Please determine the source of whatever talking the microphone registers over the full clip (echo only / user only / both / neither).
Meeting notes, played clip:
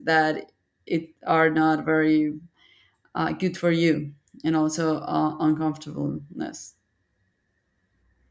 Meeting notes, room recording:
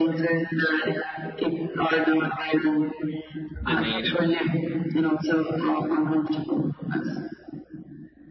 both